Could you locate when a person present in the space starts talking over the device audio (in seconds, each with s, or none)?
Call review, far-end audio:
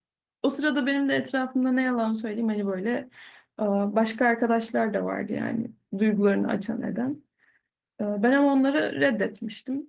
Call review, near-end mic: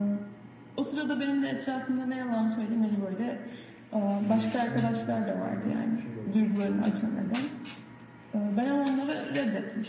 4.2 s